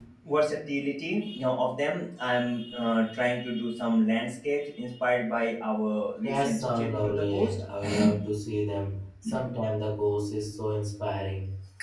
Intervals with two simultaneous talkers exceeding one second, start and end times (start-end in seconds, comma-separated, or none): 6.2-7.6